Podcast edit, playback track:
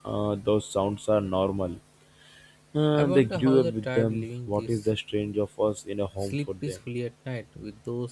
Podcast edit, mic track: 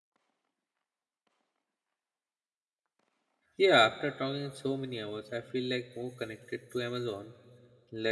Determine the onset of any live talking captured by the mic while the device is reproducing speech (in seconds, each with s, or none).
3.6 s